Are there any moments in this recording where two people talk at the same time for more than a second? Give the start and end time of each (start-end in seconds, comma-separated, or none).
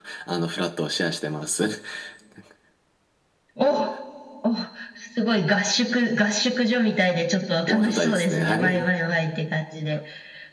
7.7-8.9